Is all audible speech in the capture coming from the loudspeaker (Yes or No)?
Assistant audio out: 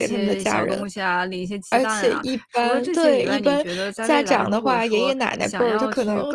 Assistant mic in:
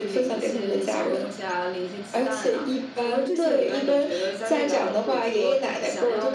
Yes